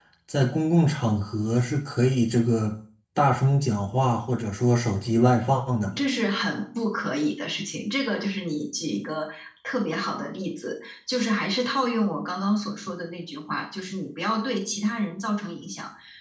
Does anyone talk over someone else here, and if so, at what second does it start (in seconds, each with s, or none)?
none